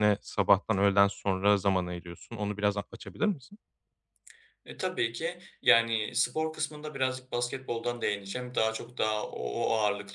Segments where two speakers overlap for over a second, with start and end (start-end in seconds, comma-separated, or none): none